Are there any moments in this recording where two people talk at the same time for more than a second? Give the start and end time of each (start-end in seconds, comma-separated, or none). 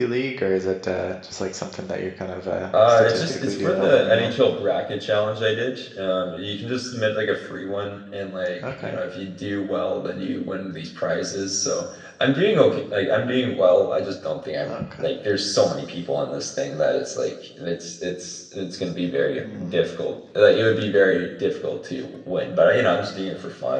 2.9-4.3